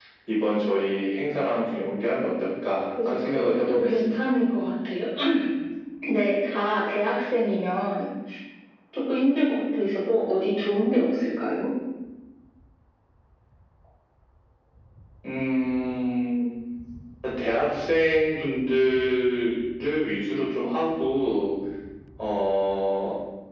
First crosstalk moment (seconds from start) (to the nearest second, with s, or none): 3 s